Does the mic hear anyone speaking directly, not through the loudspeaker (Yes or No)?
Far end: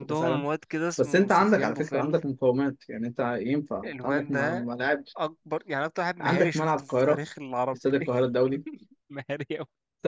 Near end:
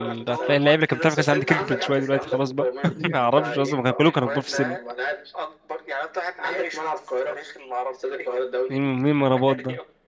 Yes